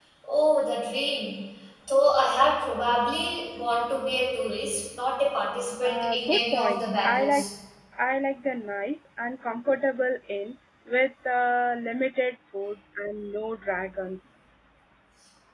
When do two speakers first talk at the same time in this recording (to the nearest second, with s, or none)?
6 s